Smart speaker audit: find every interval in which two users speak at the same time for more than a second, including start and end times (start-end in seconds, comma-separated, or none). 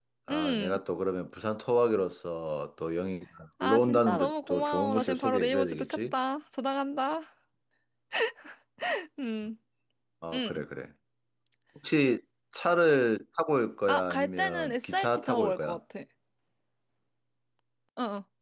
3.6-6.1, 13.9-15.8